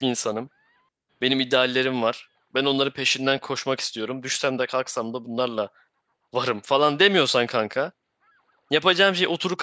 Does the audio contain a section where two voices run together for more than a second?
No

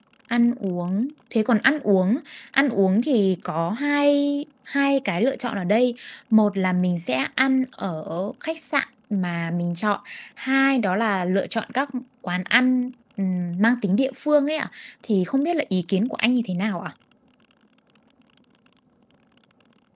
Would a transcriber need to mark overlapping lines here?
No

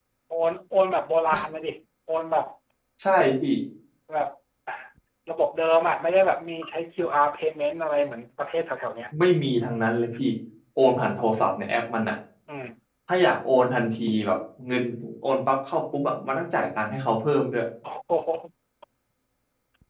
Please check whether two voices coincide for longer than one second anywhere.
No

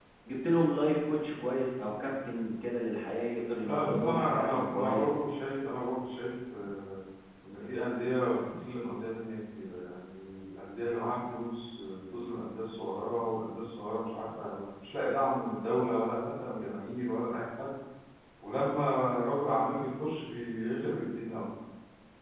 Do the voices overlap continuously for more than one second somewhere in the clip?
Yes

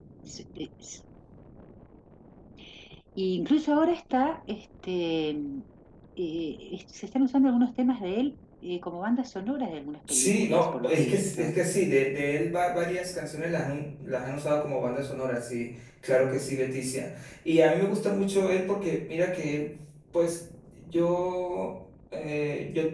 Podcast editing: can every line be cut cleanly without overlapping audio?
No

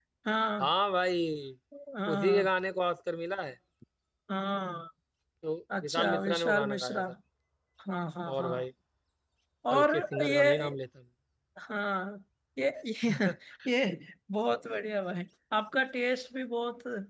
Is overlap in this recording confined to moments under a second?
No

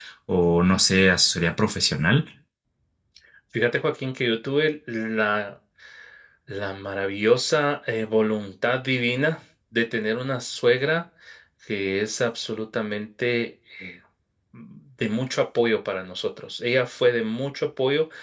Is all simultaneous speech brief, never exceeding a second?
Yes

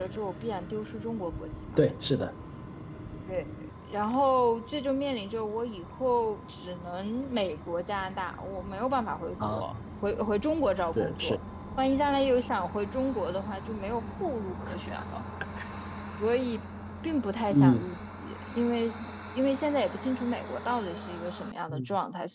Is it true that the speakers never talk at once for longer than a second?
Yes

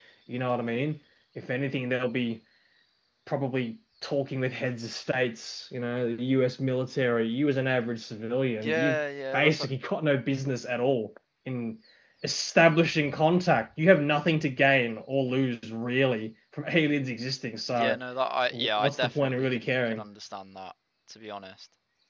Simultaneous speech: Yes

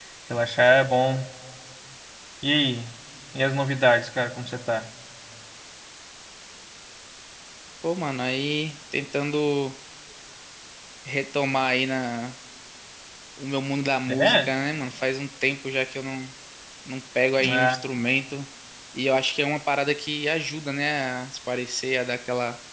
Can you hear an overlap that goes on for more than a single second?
No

